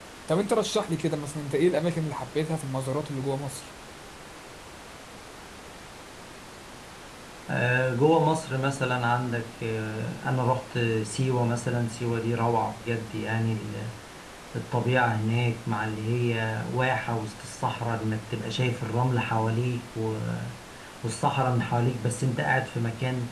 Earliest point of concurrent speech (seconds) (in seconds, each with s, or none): none